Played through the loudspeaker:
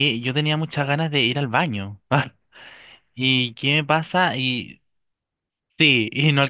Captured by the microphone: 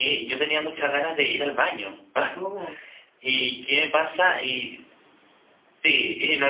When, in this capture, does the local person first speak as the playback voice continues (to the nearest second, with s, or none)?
2 s